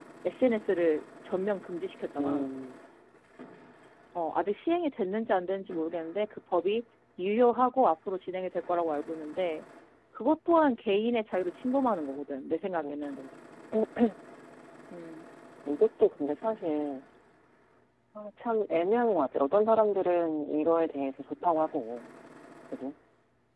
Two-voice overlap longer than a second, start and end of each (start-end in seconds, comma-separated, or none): none